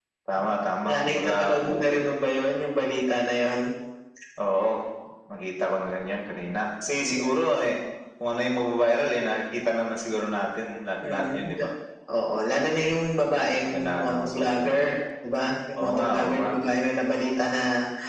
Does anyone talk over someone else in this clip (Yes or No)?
Yes